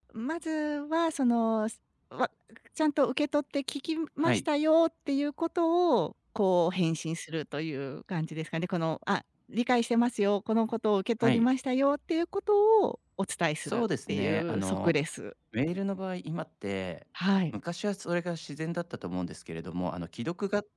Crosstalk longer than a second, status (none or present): present